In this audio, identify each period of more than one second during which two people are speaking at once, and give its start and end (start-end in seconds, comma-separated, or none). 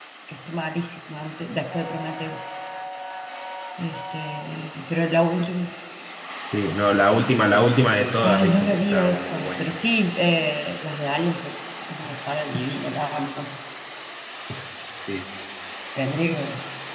8.2-9.7